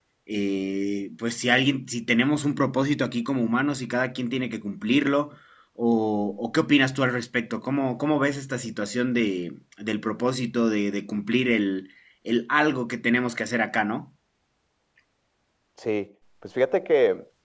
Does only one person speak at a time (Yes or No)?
Yes